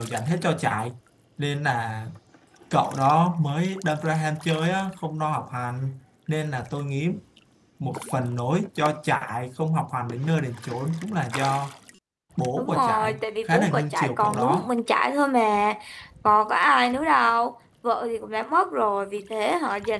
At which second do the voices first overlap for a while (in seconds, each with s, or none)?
12.6 s